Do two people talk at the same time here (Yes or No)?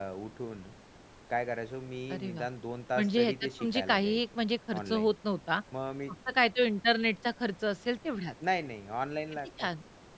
Yes